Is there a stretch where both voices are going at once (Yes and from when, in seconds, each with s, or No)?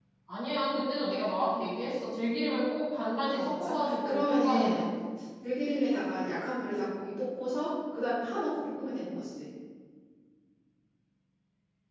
Yes, from 3.3 s